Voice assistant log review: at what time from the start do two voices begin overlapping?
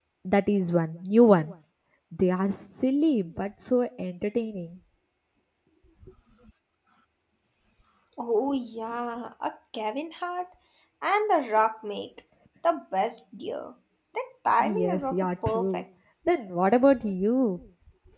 14.6 s

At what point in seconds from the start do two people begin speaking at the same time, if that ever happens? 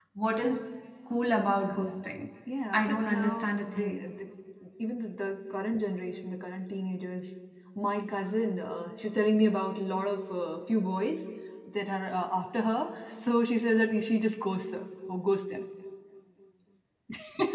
2.7 s

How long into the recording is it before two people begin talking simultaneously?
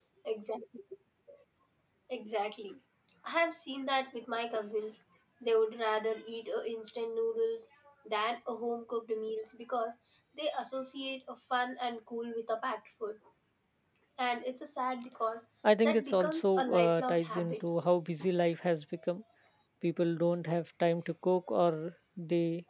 15.6 s

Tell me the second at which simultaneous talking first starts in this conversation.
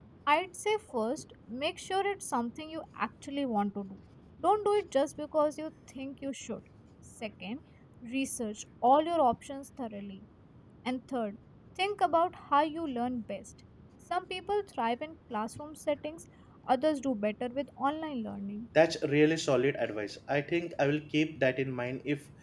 none

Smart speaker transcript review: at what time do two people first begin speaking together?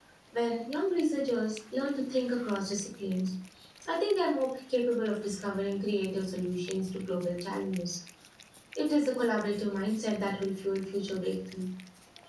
none

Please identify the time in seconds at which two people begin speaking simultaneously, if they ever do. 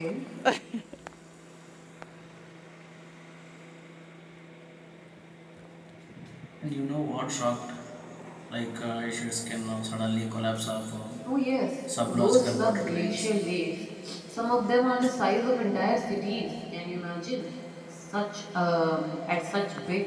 12.1 s

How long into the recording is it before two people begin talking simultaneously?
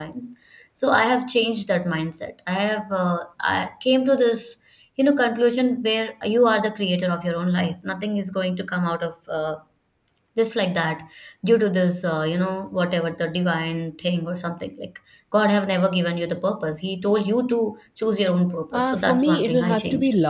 18.7 s

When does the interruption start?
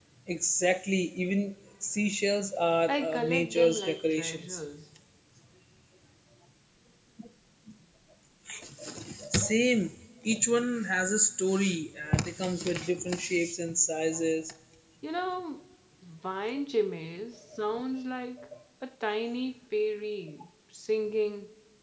2.9 s

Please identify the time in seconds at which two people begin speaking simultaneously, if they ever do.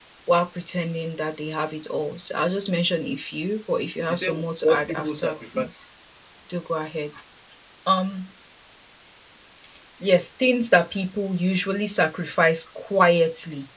4.1 s

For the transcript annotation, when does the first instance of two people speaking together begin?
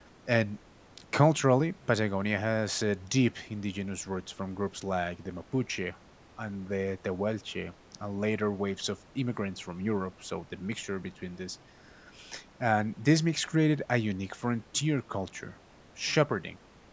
none

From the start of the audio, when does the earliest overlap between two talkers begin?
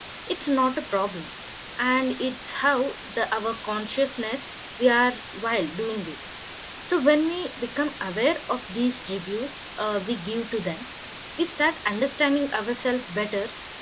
none

